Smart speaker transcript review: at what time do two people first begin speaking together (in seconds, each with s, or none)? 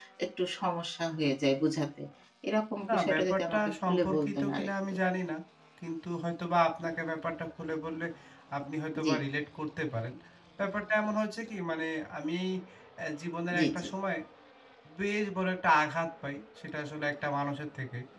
2.9 s